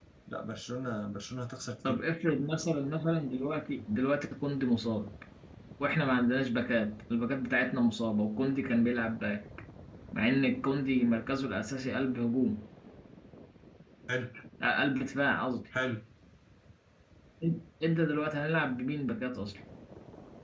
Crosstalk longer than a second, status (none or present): none